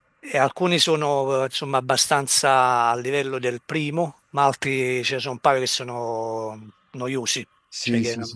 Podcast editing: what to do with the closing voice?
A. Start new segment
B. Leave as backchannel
A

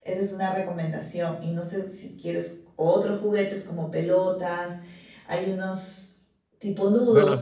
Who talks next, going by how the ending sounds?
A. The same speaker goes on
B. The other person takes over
B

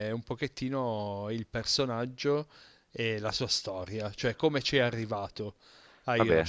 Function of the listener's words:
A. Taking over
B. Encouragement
B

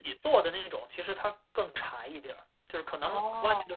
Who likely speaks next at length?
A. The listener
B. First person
B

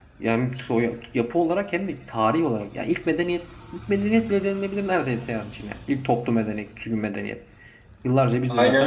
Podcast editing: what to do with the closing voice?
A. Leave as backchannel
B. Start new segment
B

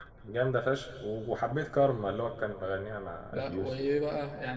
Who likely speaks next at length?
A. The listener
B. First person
A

